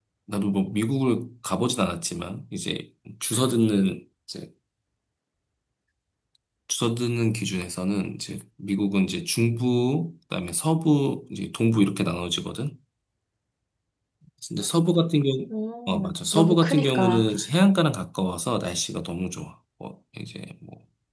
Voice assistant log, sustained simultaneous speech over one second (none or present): present